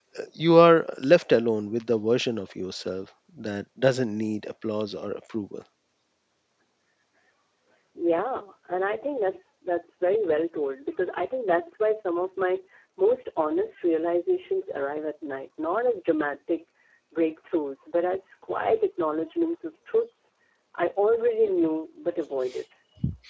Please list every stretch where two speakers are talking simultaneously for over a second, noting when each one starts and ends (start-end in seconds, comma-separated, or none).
none